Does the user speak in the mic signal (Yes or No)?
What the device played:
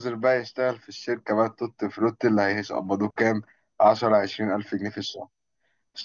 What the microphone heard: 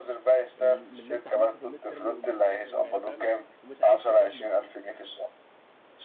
Yes